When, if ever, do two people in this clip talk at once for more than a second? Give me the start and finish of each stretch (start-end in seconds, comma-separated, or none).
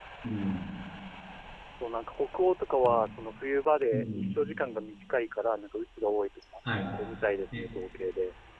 none